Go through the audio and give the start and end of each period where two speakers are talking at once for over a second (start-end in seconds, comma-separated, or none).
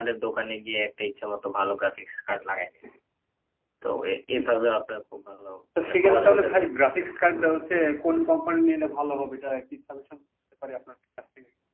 5.8-7.0